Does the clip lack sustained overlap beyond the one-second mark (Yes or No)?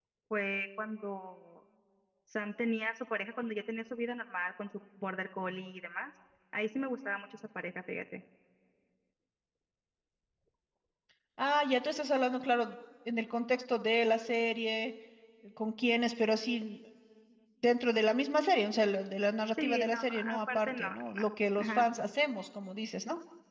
No